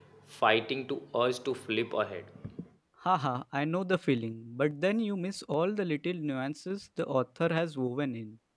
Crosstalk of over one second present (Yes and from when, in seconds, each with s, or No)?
No